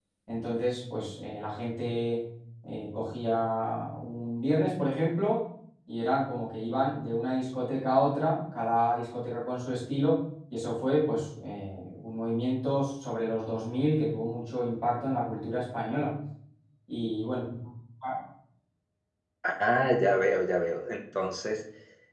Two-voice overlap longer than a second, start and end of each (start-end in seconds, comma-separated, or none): none